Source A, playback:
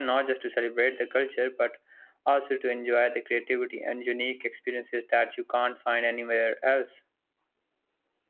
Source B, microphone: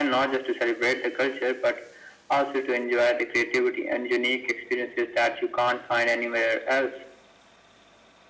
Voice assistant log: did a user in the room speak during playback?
No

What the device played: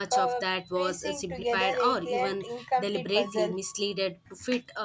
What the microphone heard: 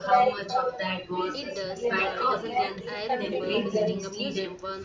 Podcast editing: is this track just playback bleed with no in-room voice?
No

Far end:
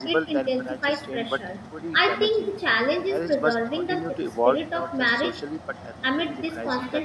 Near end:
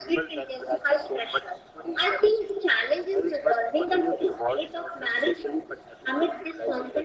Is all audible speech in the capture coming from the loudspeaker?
Yes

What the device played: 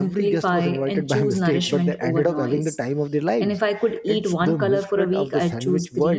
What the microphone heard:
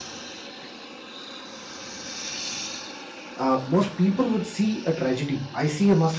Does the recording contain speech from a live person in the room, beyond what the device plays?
Yes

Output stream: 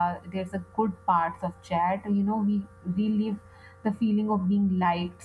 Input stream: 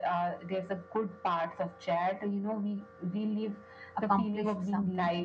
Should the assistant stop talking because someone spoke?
Yes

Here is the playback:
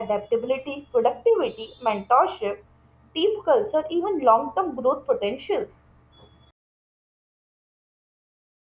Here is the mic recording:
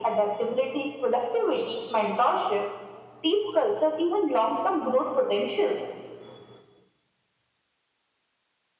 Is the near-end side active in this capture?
No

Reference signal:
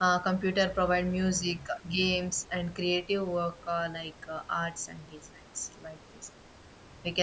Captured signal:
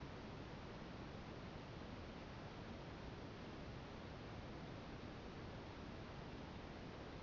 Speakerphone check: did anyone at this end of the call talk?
No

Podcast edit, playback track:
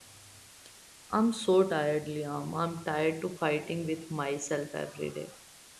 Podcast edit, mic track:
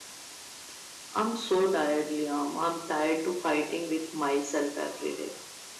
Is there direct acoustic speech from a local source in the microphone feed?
No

